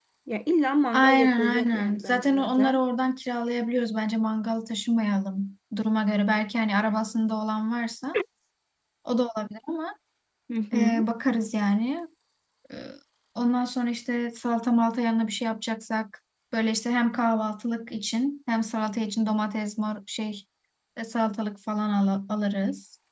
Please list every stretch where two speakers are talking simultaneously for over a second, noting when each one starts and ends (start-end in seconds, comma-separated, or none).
0.9-2.8